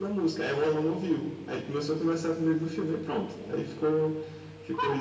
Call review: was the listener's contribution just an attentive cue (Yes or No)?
No